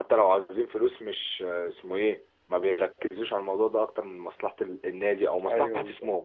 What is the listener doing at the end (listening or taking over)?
listening